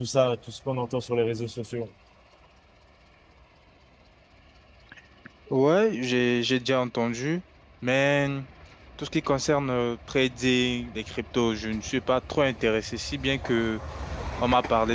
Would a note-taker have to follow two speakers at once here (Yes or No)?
No